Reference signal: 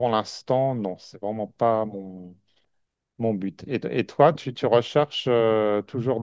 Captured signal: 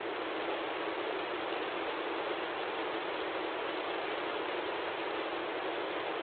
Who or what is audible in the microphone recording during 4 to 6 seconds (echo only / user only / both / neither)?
neither